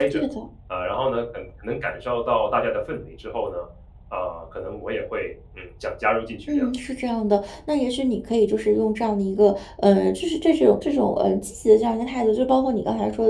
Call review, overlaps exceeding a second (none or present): none